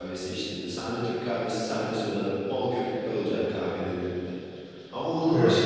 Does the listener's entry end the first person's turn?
No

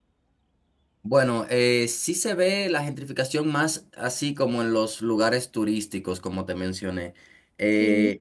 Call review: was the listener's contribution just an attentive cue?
Yes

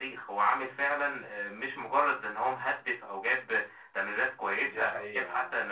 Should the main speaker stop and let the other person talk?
Yes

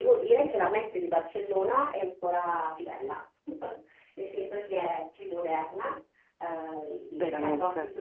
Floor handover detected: No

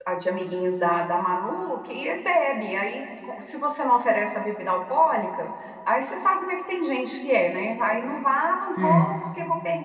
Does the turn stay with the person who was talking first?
Yes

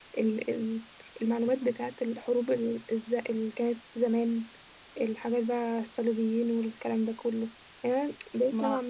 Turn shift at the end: No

